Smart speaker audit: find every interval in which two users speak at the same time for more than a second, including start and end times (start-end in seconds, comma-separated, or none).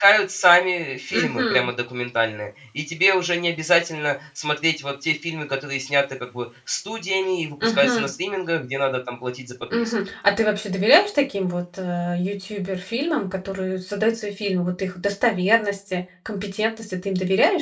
none